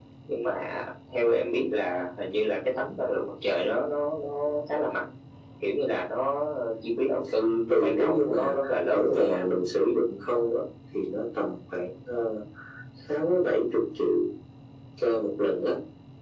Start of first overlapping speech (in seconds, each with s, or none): 7.8 s